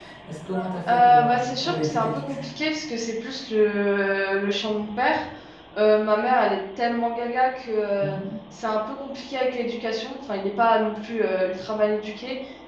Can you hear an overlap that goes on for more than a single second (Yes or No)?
Yes